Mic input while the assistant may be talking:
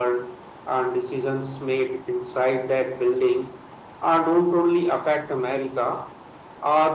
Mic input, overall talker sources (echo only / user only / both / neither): echo only